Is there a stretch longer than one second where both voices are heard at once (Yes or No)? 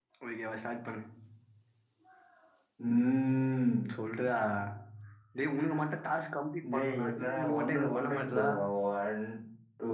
Yes